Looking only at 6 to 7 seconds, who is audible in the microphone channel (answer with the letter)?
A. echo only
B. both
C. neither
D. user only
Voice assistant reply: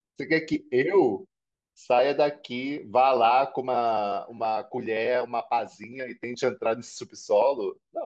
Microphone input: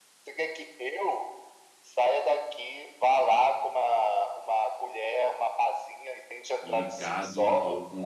B